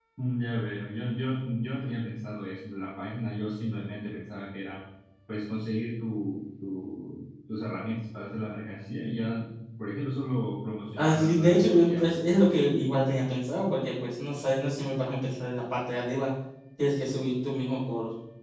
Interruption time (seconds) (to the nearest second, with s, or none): 11 s